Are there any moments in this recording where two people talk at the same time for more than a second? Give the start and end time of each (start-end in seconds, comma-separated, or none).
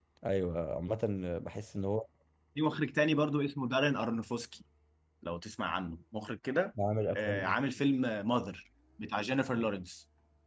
none